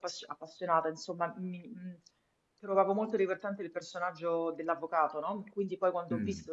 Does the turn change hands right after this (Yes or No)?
No